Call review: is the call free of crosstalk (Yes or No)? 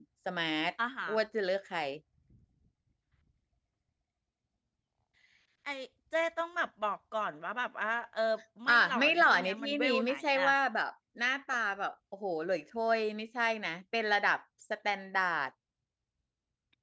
No